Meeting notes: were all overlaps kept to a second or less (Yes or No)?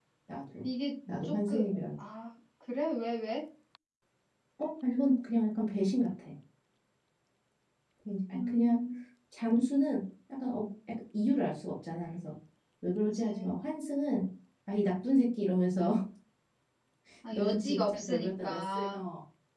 No